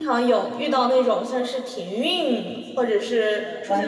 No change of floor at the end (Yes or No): No